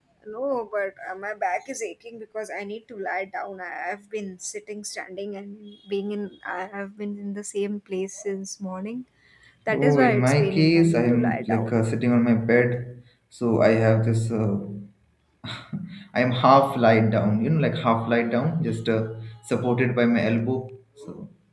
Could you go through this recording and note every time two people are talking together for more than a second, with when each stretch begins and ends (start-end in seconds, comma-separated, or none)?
9.7-11.8